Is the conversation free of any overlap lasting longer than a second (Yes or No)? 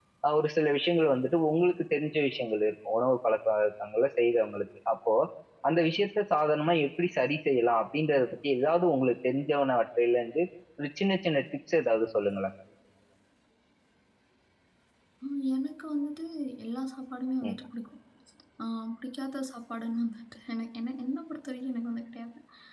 Yes